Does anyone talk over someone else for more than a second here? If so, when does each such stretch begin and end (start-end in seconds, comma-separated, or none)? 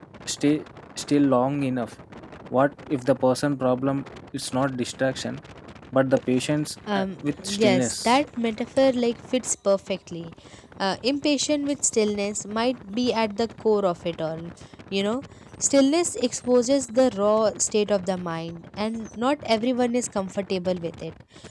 6.9-8.2